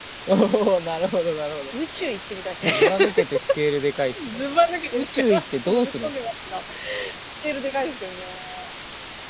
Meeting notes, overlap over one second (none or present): present